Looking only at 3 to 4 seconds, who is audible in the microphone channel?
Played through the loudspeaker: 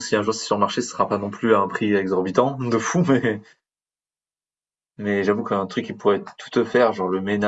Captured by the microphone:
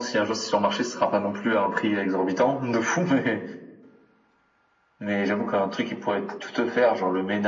echo only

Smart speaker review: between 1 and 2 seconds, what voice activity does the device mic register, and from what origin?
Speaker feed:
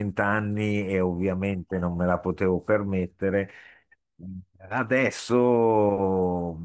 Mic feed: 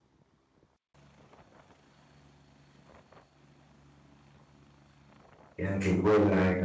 neither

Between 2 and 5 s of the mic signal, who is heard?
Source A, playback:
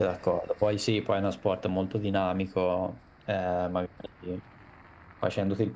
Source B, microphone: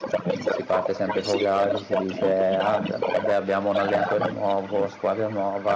both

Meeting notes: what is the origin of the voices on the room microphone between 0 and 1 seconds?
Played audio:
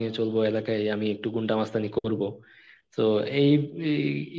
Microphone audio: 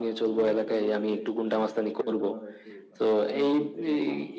both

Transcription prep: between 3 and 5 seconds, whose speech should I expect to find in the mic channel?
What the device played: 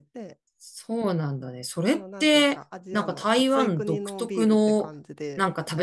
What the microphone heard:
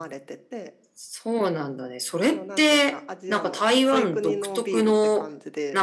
echo only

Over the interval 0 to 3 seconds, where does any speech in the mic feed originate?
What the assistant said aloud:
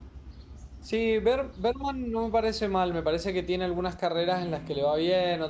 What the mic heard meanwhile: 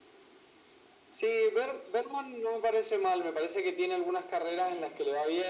echo only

